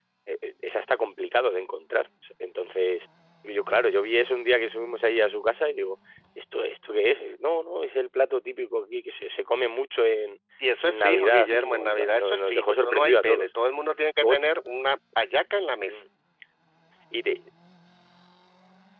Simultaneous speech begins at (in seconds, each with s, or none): 10.8 s